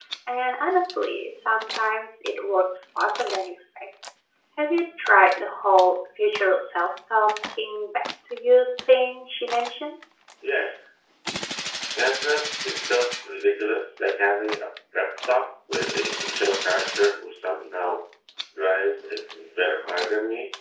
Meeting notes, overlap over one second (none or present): none